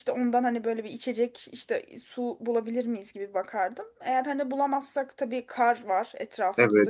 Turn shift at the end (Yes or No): Yes